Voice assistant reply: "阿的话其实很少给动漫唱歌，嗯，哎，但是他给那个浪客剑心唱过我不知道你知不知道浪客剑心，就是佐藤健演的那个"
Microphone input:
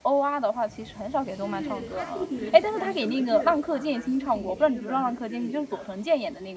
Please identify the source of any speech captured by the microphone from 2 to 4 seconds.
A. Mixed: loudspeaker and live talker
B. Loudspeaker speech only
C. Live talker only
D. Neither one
A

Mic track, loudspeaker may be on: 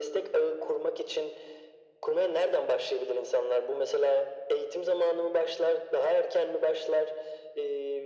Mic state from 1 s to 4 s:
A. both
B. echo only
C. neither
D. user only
B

